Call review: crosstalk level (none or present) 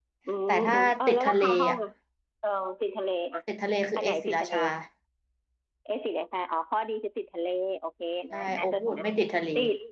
present